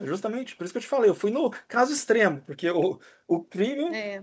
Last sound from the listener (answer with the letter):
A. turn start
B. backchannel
B